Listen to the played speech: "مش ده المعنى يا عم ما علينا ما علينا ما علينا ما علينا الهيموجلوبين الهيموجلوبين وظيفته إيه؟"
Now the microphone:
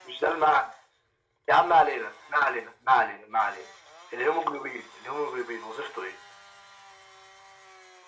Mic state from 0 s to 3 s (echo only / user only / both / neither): echo only